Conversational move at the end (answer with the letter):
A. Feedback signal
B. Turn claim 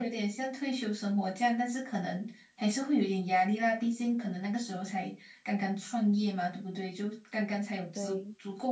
A